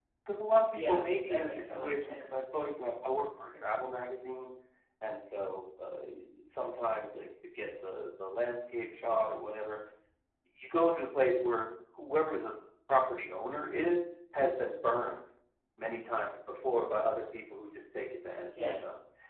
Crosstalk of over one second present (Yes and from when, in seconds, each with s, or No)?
Yes, from 0.7 s